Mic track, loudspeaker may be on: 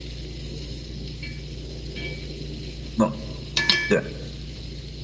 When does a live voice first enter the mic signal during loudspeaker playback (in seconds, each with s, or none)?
3.0 s